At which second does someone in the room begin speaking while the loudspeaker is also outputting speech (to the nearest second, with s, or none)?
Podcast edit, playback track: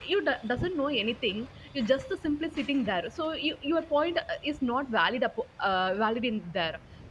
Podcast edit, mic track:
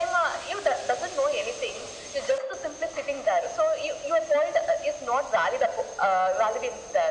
none